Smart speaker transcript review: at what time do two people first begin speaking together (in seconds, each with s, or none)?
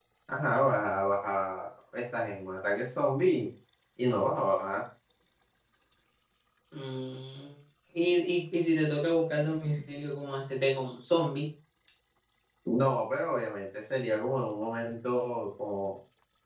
none